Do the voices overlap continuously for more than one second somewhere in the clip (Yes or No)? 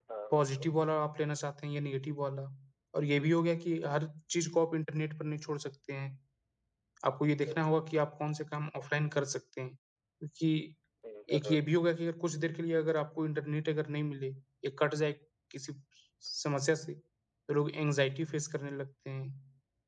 No